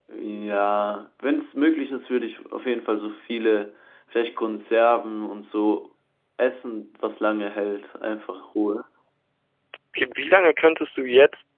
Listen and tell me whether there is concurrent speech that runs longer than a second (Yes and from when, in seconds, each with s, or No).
No